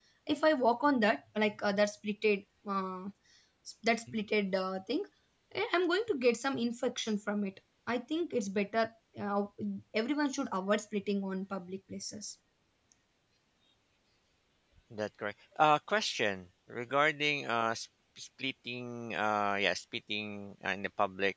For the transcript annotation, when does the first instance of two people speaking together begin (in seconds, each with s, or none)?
none